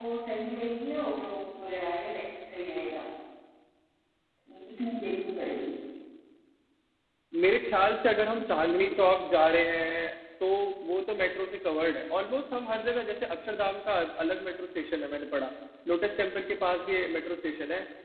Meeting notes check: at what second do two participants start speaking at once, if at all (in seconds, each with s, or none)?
none